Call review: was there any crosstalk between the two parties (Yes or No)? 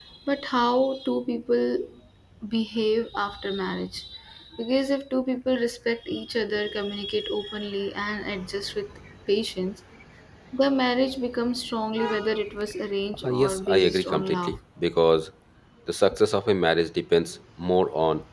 Yes